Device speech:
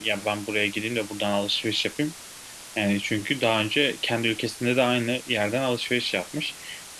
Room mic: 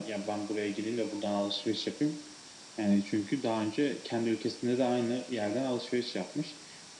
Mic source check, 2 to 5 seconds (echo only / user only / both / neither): echo only